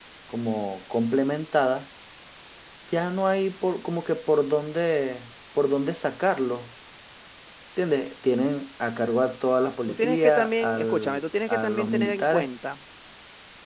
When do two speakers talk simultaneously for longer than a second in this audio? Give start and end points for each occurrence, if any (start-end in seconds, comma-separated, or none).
9.9-12.5